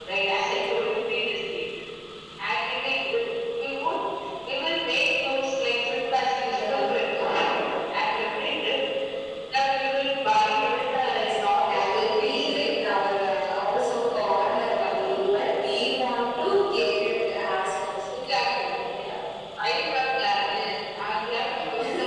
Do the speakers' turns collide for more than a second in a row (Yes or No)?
Yes